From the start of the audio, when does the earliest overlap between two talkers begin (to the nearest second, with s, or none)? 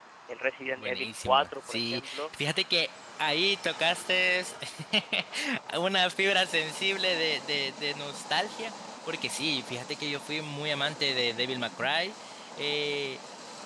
1 s